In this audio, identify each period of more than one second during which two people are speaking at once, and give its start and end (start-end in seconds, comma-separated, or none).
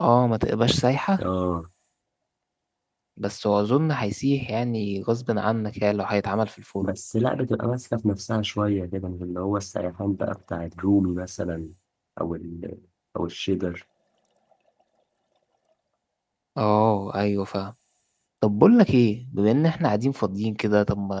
none